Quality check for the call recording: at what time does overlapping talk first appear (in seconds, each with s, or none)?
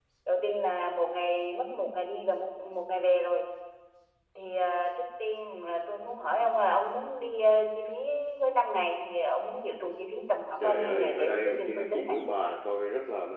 10.6 s